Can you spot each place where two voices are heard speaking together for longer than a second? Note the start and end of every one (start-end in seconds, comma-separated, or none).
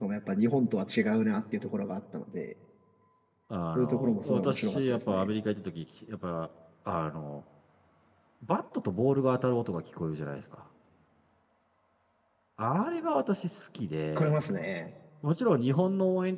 3.8-5.3